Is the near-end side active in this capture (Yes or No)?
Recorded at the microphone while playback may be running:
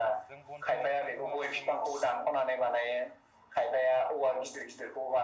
Yes